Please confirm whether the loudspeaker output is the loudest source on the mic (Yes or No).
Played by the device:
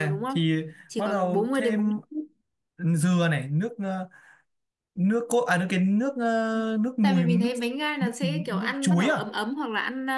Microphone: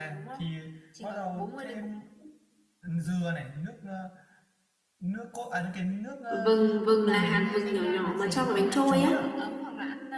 No